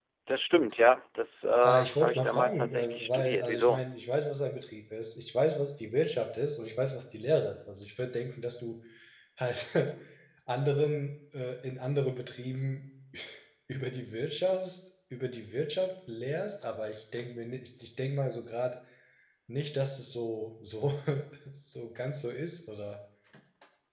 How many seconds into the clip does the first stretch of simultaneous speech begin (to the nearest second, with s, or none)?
2 s